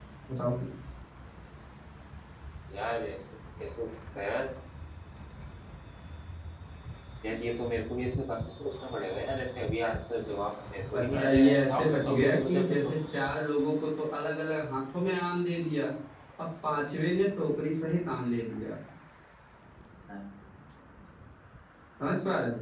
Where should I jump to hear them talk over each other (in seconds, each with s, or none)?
10.9 s